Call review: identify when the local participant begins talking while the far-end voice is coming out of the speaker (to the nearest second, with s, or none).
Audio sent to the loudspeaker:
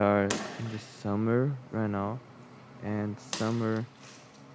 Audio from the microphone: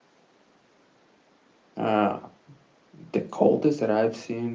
2 s